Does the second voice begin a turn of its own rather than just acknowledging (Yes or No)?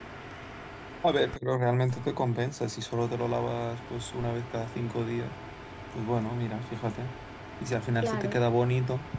No